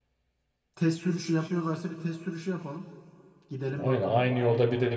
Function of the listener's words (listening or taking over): taking over